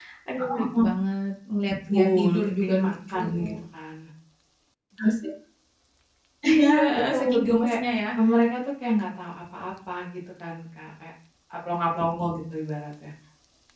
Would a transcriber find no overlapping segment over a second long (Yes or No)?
No